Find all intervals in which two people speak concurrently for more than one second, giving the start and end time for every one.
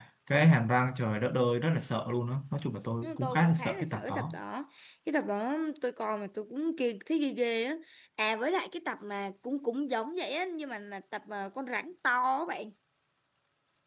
3.0-4.4

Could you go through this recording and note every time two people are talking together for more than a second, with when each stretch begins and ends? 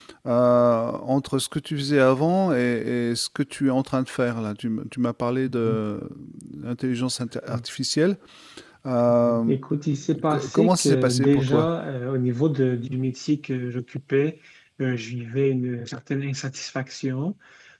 10.3-11.7

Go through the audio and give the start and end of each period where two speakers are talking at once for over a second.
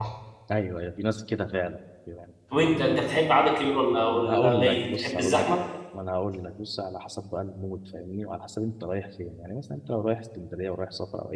4.1-5.5

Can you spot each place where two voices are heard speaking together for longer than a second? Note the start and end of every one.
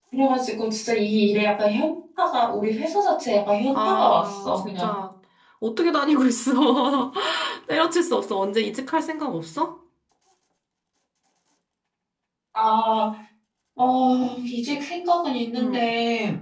3.7-4.9

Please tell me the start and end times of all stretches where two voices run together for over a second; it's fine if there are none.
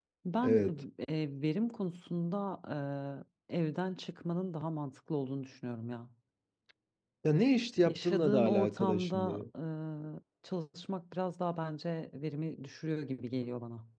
7.8-9.4

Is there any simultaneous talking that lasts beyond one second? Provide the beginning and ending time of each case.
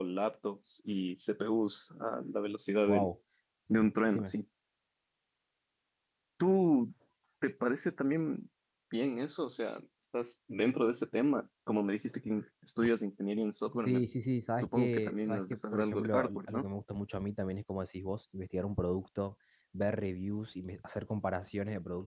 14.6-16.6

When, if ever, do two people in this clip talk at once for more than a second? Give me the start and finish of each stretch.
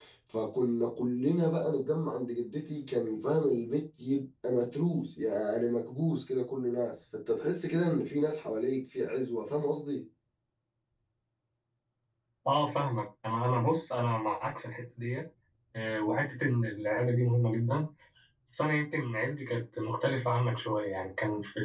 none

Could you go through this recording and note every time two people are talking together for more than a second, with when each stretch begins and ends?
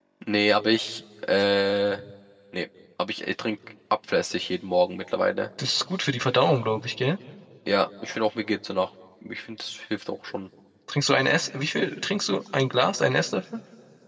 none

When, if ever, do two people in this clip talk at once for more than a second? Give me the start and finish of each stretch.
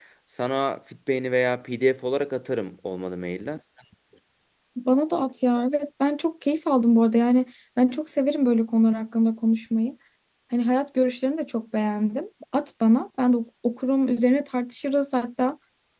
none

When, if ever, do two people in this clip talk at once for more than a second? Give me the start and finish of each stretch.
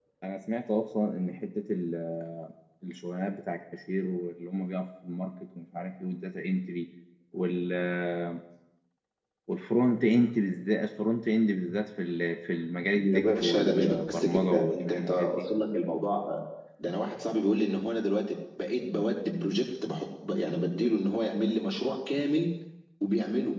12.9-15.4

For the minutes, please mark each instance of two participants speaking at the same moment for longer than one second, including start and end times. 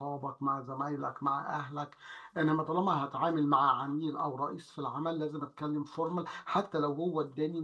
none

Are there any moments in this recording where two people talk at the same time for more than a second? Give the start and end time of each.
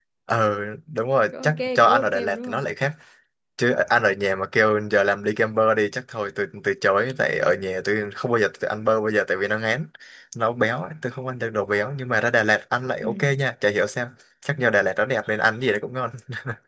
1.4-2.7

